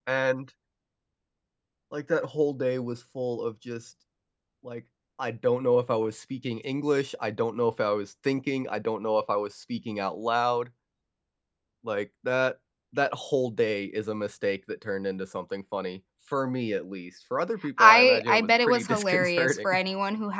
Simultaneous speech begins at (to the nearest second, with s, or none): 18 s